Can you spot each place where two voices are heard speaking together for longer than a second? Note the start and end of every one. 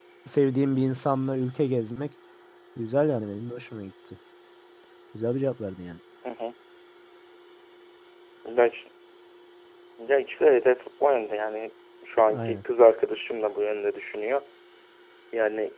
none

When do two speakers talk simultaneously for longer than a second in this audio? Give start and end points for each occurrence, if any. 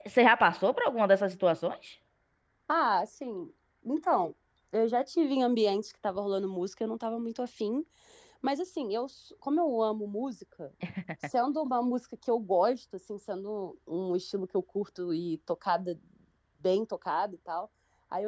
none

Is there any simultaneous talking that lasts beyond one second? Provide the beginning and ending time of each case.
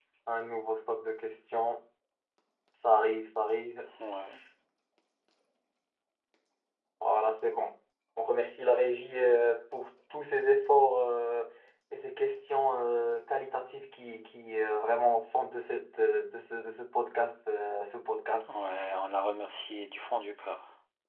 none

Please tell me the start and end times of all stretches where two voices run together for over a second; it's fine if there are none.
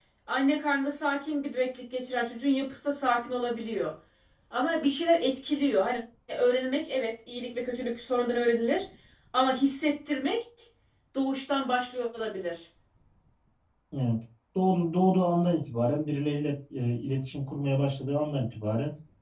none

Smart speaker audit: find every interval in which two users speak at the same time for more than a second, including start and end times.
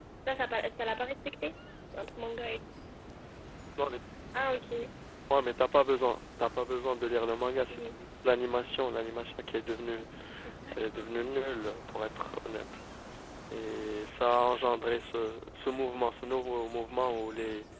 none

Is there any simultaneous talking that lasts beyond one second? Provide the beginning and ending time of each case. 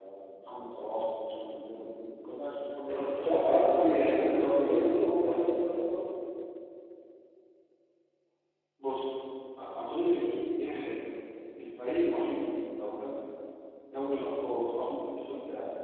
2.9-5.5

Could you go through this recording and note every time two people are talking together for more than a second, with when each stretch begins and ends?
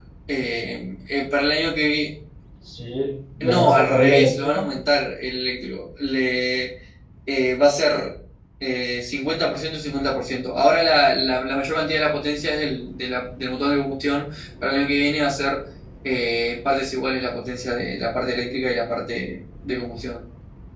3.4-4.6

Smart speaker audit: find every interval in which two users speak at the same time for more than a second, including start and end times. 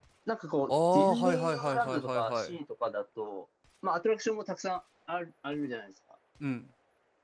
0.7-2.5

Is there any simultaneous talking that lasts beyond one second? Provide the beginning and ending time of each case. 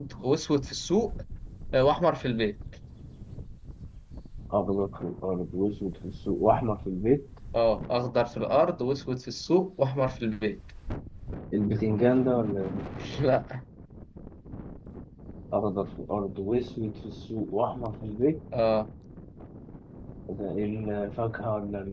none

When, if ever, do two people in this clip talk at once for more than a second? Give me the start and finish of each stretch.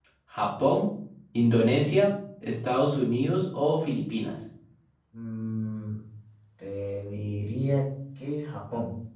none

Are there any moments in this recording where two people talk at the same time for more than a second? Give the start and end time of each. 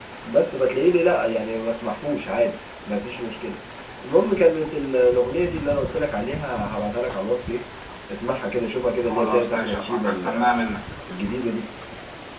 9.0-10.5

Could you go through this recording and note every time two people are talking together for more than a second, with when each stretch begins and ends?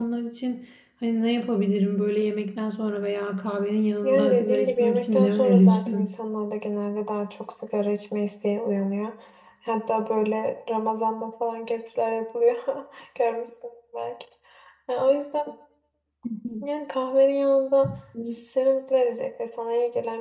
4.0-6.1

